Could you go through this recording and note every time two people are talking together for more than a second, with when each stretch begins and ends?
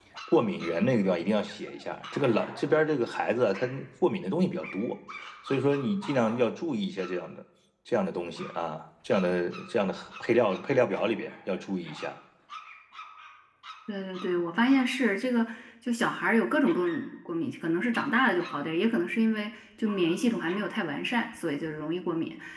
none

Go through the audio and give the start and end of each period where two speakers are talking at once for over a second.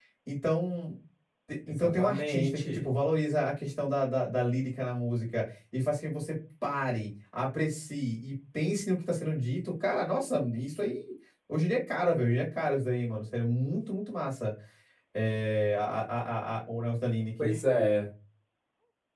1.7-2.9

